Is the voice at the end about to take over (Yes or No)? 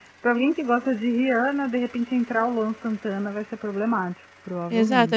Yes